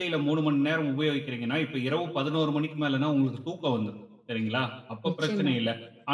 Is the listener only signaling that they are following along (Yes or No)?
Yes